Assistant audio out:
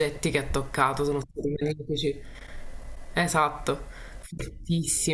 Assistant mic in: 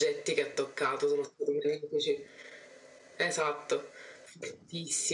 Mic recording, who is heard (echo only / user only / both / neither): echo only